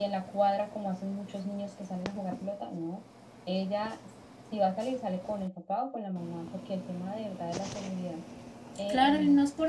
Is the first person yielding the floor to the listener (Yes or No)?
Yes